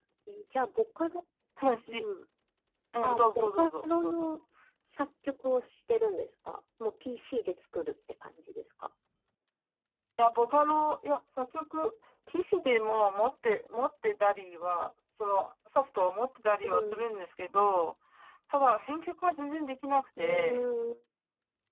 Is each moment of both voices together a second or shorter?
No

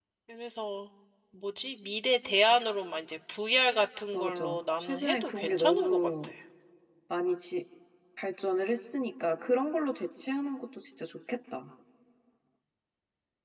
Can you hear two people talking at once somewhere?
Yes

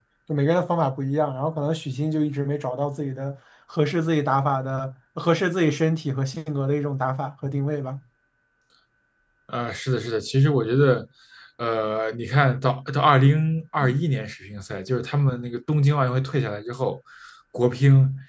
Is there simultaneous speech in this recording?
No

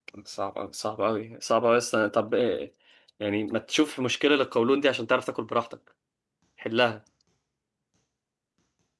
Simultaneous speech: No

